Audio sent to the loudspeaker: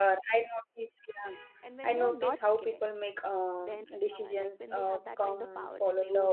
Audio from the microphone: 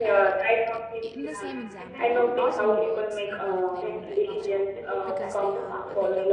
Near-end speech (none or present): present